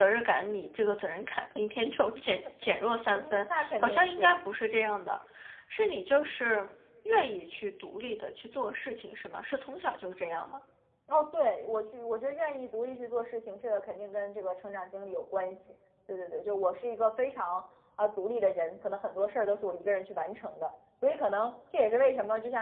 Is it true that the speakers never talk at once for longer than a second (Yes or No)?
No